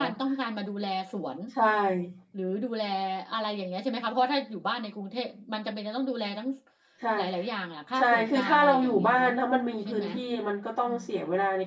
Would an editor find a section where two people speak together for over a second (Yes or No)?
Yes